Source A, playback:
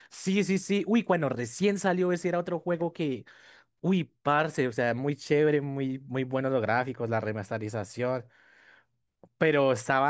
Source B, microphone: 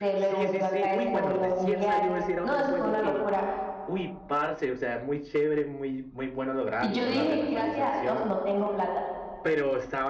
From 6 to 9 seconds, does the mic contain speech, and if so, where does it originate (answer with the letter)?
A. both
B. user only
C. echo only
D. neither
A